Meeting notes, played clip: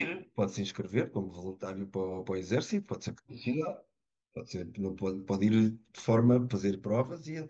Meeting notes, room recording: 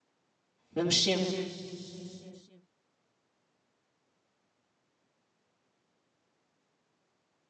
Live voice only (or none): Vamos sempre.